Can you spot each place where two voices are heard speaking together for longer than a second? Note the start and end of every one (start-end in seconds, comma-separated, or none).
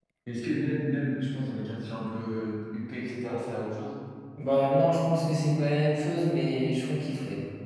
none